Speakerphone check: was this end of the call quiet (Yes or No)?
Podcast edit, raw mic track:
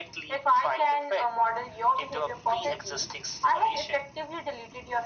Yes